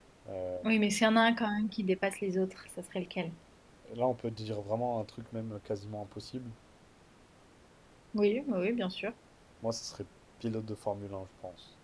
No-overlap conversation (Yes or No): Yes